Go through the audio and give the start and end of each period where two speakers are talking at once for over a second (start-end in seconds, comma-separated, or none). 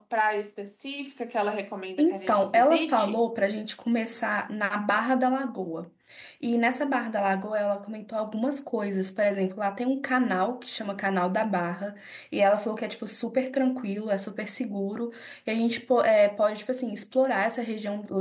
2.0-3.2